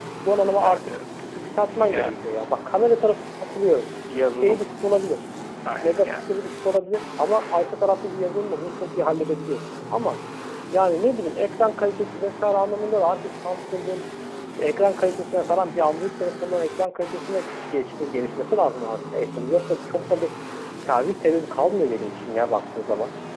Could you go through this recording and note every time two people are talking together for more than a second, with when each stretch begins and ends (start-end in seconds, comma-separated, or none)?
none